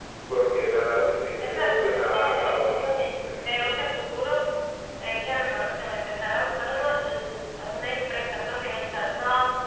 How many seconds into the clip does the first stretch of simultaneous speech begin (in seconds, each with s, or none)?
1.4 s